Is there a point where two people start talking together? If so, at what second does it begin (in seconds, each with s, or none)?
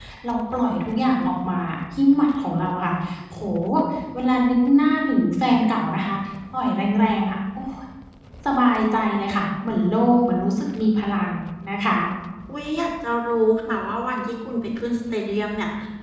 none